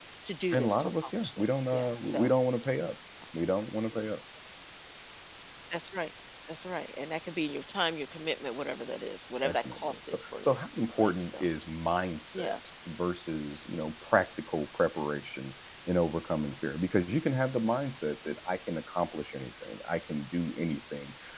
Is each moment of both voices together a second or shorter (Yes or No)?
No